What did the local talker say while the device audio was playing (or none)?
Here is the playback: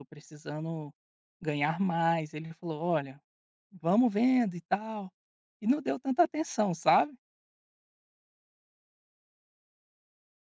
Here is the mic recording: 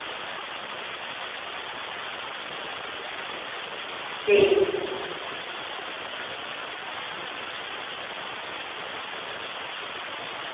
Sim.